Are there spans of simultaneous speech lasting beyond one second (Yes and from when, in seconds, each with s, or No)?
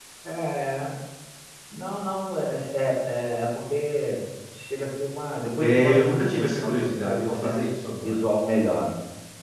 Yes, from 5.6 s